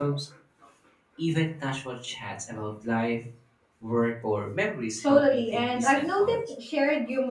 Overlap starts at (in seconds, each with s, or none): 5.0 s